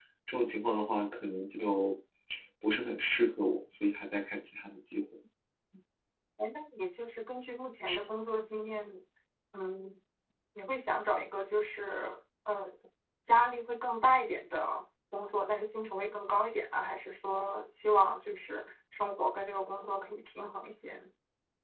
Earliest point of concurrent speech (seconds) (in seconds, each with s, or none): none